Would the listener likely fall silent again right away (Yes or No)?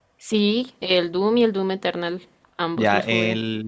No